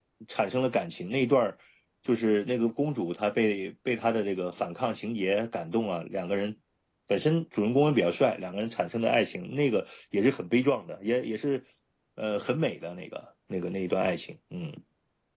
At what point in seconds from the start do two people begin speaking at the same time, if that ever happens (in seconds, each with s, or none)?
none